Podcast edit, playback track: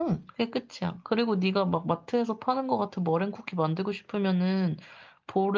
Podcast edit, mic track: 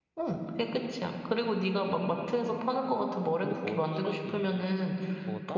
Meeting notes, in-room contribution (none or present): present